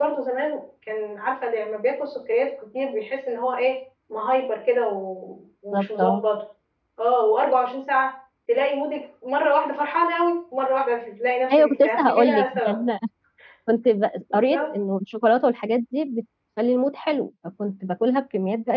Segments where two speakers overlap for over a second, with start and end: 11.6-12.8

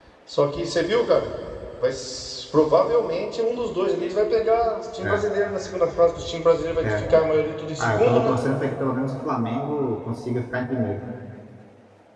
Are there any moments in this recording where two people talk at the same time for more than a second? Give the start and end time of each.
none

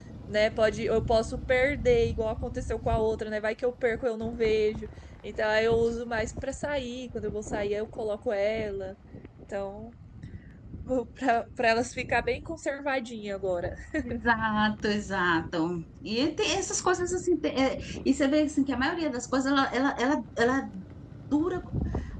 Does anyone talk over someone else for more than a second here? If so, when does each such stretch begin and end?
none

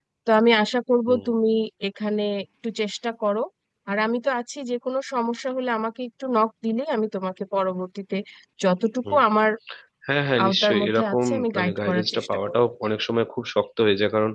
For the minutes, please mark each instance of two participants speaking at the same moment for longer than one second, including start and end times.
10.4-12.6

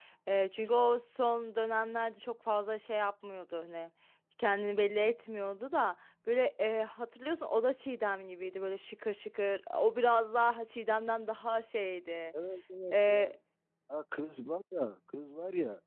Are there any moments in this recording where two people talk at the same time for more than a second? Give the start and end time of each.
none

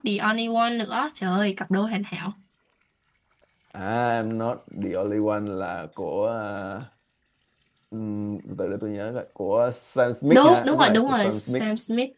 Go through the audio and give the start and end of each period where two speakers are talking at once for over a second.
10.3-11.6

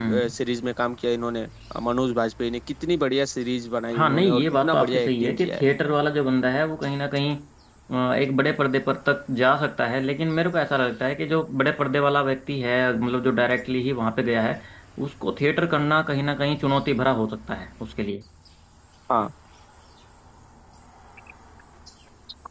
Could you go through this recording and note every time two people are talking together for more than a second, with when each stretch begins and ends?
3.9-5.6

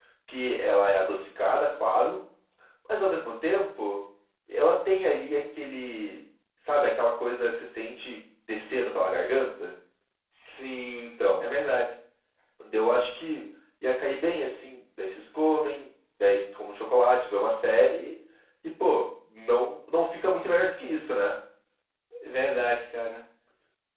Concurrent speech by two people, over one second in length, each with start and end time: none

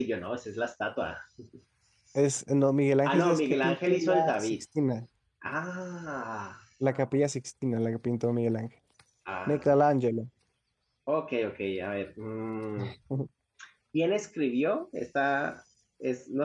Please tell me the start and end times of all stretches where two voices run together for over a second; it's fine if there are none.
3.0-4.6

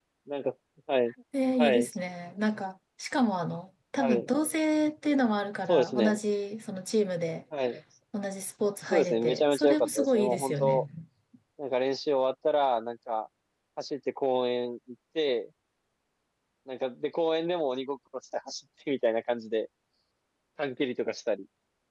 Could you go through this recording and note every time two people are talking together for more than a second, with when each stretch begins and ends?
8.9-10.8

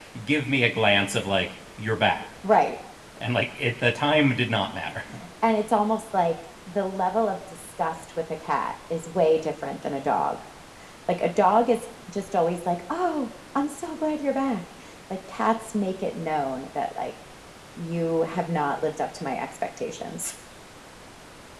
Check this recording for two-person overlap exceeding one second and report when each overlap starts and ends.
none

